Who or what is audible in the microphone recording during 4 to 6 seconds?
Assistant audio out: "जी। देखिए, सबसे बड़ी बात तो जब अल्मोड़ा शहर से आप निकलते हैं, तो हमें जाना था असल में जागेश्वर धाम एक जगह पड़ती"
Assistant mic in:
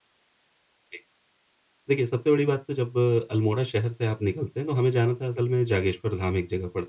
echo only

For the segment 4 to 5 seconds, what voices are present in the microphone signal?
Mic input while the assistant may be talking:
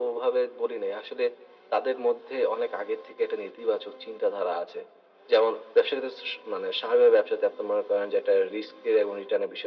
echo only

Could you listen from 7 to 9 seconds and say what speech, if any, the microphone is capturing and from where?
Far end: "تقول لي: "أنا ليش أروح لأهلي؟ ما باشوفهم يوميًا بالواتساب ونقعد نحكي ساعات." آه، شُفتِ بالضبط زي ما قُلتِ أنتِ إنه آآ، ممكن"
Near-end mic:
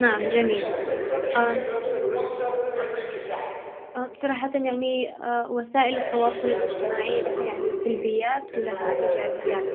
both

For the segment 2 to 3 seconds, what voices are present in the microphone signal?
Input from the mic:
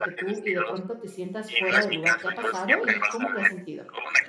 both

